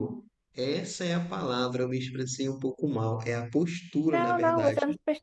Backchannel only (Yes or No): No